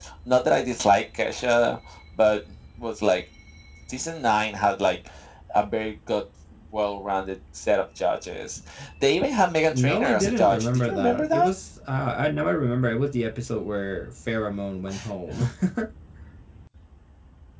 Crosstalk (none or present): present